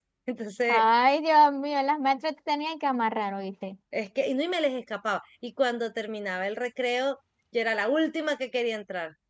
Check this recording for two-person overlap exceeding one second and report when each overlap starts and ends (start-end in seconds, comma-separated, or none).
none